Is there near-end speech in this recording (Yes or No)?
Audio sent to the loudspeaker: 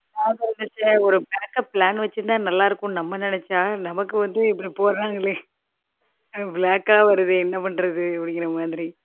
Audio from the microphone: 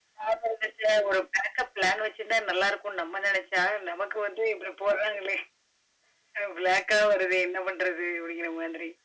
No